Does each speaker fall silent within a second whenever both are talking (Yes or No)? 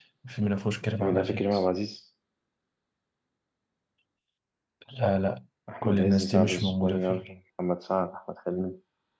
No